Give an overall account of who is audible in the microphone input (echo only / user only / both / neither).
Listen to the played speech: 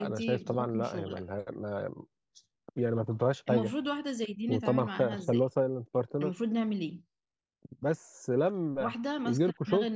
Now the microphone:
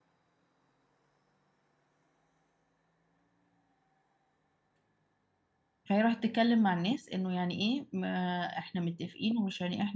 user only